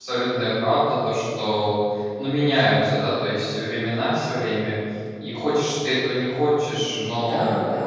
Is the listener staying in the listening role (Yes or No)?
No